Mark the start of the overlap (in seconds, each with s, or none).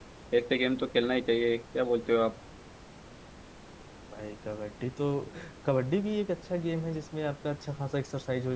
none